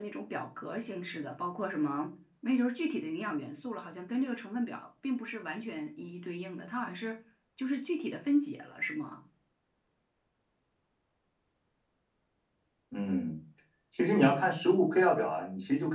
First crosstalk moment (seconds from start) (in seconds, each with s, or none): none